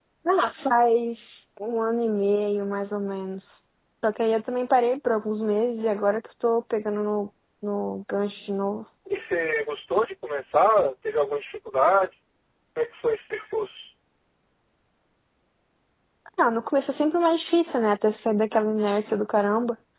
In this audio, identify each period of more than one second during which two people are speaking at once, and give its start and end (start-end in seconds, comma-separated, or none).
none